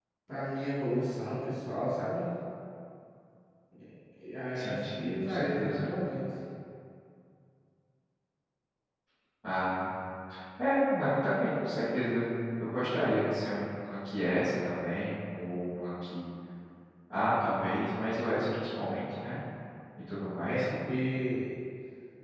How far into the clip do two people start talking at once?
5 s

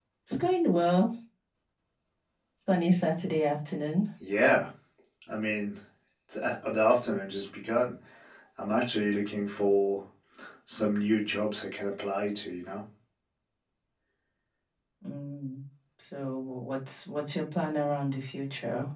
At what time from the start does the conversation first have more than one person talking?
none

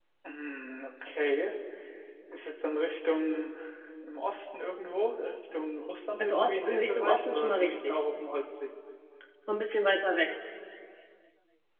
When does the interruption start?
6 s

